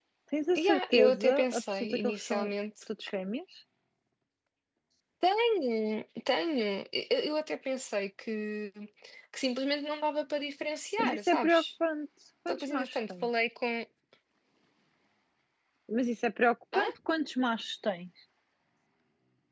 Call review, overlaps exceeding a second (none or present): present